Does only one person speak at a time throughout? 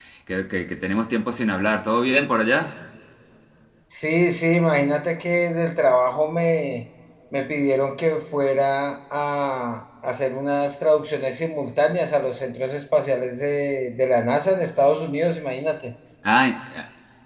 Yes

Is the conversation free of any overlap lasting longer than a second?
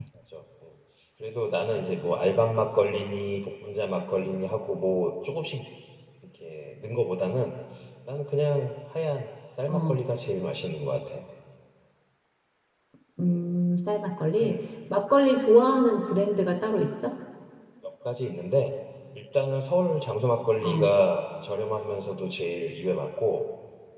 Yes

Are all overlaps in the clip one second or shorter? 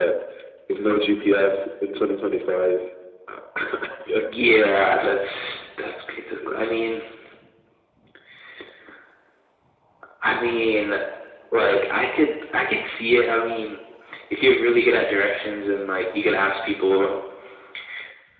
Yes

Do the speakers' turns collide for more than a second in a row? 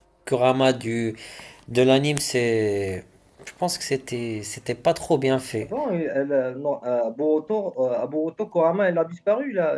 No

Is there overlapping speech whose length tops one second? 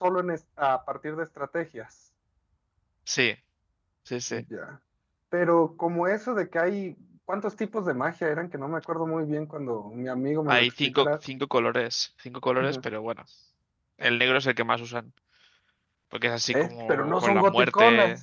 Yes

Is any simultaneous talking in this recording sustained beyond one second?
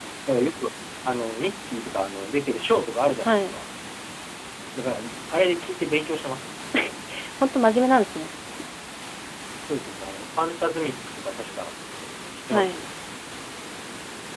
No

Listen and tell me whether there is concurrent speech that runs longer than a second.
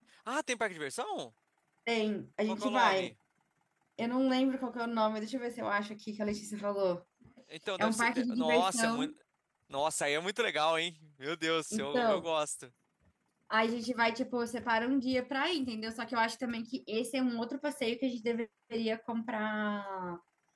Yes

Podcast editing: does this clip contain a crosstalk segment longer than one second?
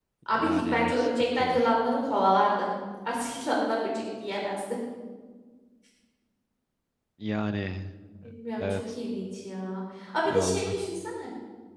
Yes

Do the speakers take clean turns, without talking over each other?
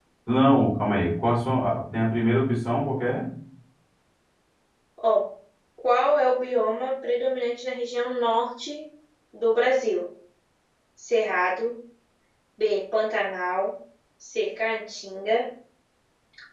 Yes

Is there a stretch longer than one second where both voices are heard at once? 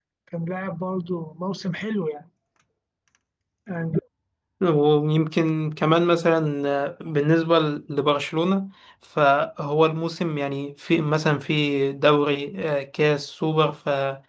No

